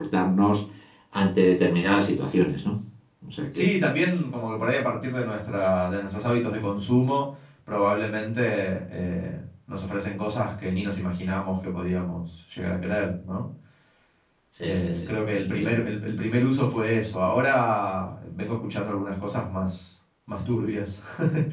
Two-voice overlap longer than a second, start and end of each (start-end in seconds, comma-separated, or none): 14.6-15.8